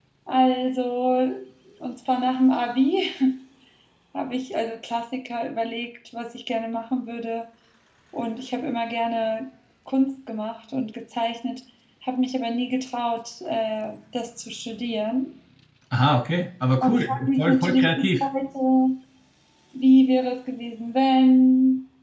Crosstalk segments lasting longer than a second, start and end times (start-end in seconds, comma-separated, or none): 16.8-18.2